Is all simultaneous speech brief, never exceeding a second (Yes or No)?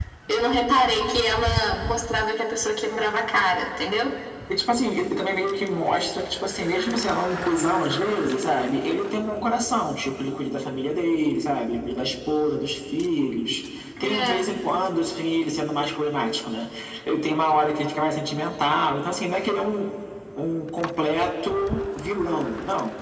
Yes